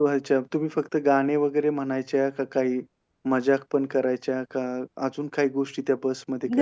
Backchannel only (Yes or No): No